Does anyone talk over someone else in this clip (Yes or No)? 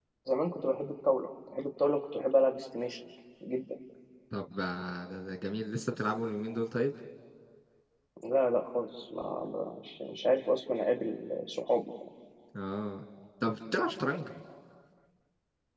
No